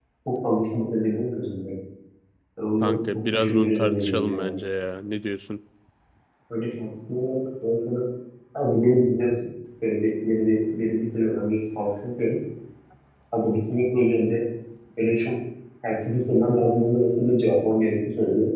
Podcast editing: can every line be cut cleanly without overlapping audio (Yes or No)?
No